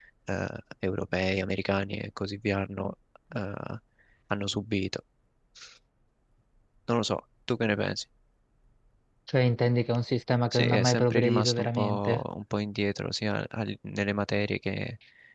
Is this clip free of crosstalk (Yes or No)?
No